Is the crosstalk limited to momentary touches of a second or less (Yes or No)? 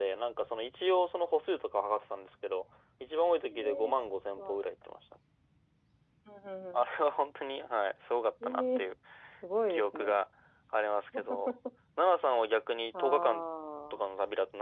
Yes